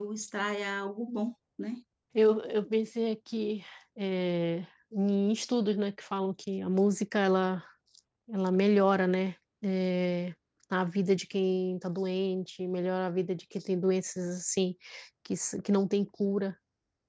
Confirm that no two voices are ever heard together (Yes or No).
Yes